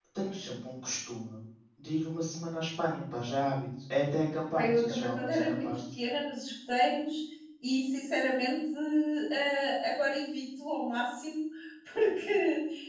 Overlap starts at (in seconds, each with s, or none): 4.5 s